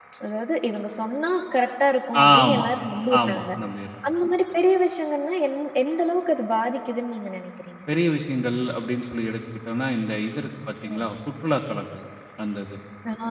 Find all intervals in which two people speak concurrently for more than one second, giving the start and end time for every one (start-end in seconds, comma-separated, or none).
none